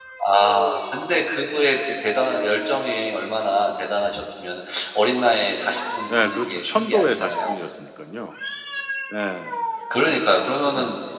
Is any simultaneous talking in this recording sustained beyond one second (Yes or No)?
Yes